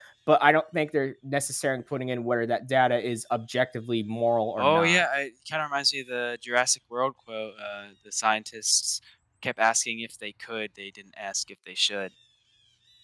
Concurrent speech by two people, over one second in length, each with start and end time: none

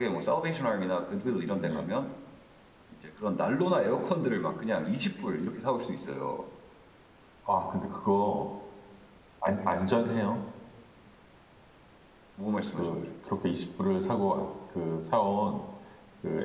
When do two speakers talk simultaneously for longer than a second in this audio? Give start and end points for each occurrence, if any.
none

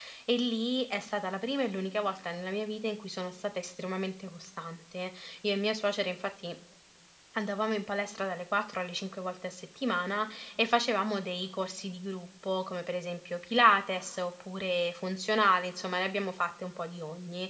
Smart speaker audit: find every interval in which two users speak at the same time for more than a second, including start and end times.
none

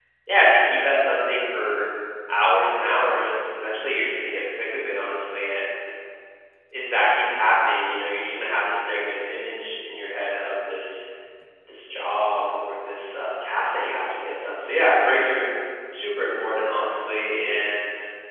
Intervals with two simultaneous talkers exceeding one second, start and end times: none

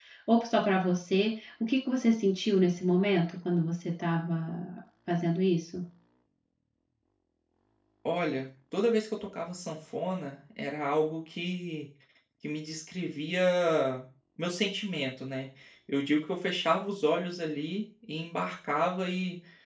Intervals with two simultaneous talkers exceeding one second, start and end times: none

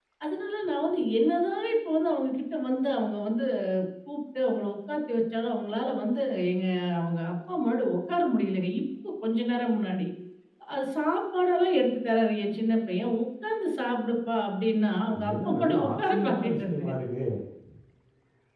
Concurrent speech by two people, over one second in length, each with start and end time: 15.2-16.9

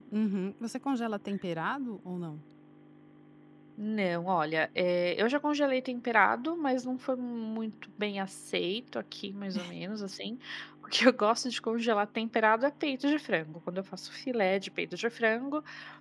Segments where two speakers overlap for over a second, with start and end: none

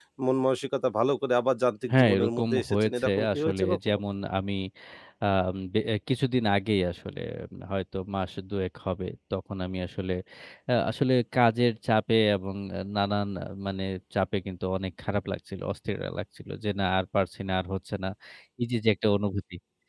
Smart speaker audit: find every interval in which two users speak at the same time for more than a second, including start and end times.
1.9-4.0

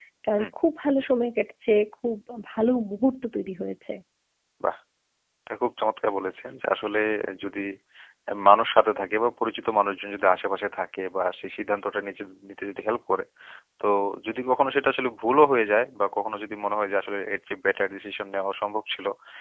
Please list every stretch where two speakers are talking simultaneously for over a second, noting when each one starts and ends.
none

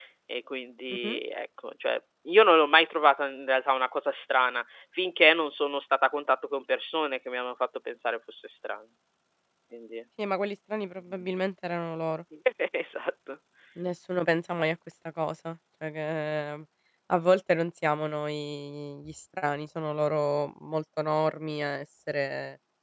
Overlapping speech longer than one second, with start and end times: none

